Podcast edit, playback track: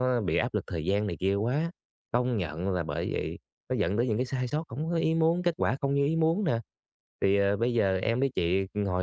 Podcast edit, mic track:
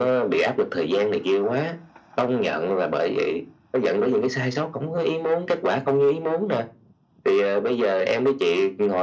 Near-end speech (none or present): none